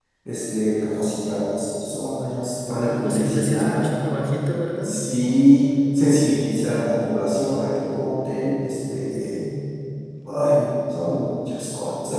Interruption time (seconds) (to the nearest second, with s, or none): 3 s